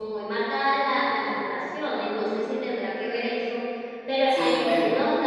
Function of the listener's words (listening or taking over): taking over